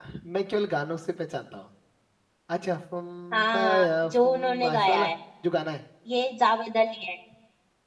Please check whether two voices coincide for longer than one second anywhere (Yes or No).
Yes